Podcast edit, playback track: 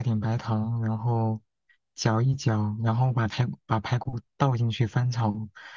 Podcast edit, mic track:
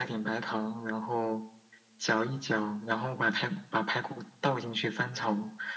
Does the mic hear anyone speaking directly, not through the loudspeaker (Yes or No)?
No